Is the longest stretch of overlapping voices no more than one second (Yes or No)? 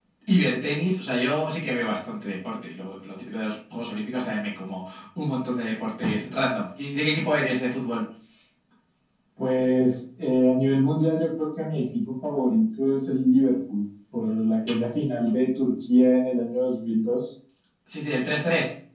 Yes